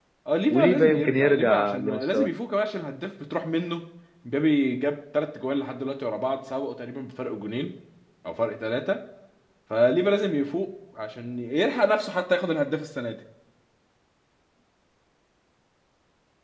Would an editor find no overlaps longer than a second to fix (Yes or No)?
No